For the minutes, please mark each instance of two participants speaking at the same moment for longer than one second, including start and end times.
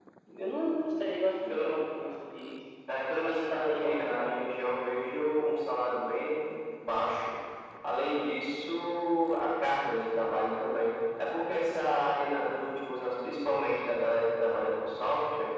3.2-4.4

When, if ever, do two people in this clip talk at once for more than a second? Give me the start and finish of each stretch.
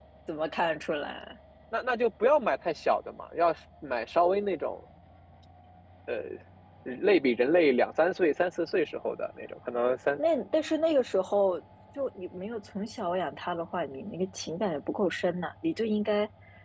none

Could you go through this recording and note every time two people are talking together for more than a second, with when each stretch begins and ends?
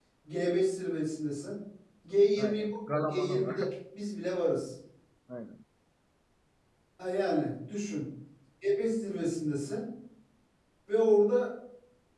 2.4-3.6

